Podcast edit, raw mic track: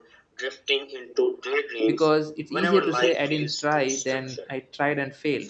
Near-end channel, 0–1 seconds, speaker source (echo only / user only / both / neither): echo only